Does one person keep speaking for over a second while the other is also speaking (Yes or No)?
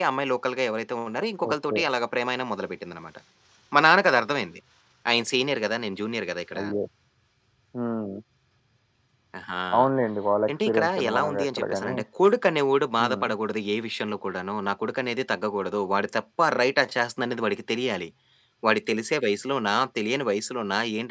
Yes